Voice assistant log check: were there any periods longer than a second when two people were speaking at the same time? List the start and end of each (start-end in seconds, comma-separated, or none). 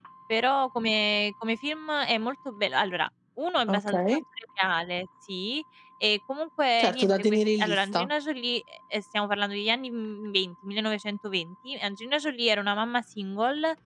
6.8-8.1